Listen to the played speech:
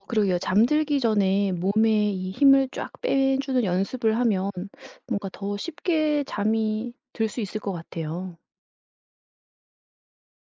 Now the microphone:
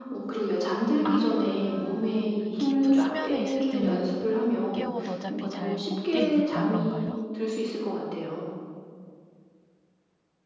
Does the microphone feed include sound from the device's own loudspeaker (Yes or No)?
Yes